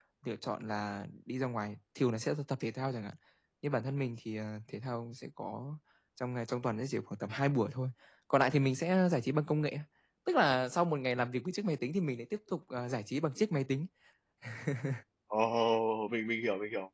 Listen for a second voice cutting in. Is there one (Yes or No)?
No